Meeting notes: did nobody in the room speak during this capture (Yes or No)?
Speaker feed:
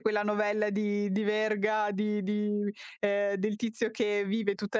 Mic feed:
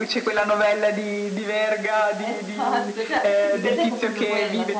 No